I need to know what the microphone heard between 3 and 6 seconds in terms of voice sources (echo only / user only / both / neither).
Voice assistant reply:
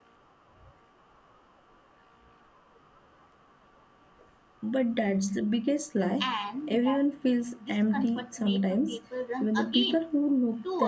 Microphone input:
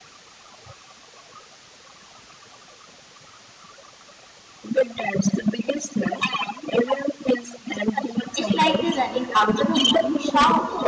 echo only